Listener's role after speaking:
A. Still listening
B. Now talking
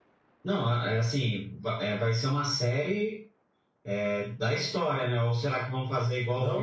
B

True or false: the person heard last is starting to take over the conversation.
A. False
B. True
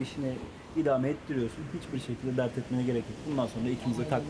B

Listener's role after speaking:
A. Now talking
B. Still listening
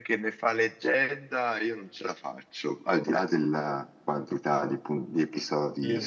A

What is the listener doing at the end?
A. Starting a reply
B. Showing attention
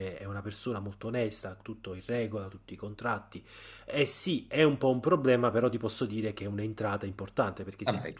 B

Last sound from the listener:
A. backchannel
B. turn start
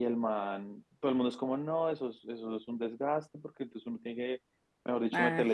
A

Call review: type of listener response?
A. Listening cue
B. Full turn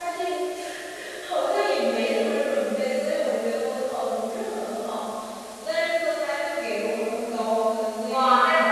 B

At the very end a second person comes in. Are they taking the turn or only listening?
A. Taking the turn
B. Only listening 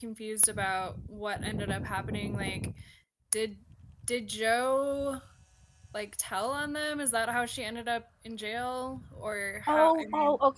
A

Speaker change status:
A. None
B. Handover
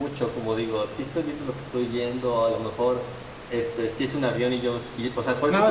B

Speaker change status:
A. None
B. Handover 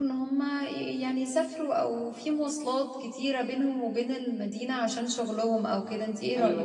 B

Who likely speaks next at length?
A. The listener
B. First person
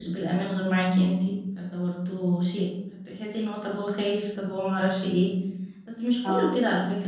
B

